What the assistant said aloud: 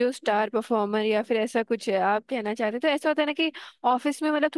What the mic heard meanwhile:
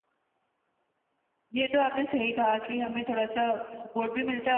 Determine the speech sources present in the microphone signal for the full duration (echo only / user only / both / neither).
user only